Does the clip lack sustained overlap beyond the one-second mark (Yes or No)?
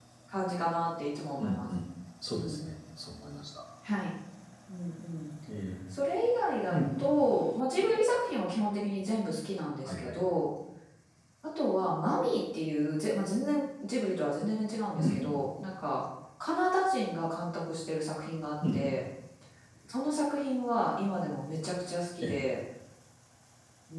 Yes